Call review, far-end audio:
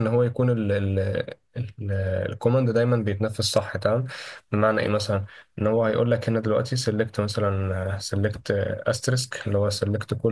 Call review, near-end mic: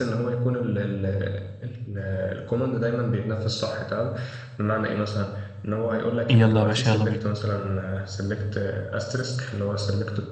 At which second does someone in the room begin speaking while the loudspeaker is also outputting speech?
6.3 s

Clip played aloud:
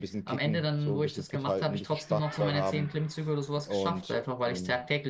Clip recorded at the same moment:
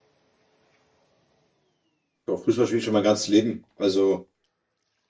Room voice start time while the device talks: 2.3 s

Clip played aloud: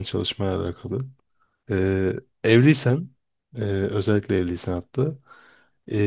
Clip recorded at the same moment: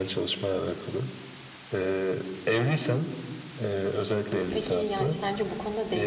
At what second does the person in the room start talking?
4.5 s

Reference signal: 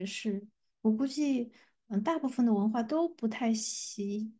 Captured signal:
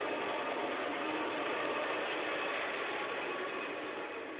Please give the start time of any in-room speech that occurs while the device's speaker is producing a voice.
none

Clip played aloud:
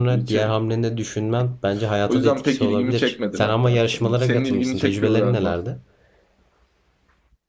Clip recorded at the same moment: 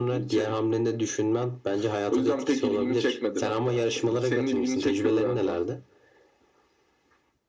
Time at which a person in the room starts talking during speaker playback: none

